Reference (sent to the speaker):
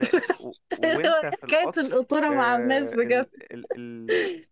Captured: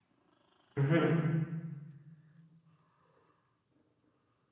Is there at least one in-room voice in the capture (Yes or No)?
Yes